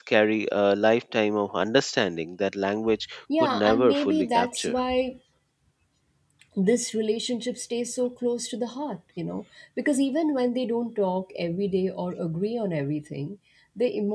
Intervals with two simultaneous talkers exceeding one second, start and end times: 3.4-4.8

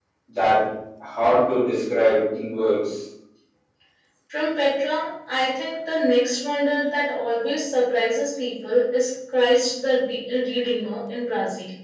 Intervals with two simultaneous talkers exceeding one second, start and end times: none

